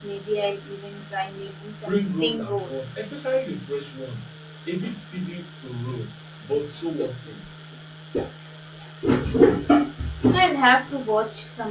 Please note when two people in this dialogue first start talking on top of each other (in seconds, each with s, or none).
1.9 s